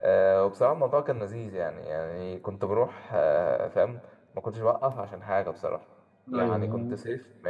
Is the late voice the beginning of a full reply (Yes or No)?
No